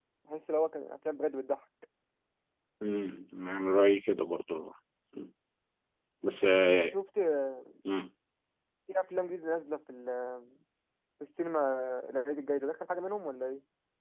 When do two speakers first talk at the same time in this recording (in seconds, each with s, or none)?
none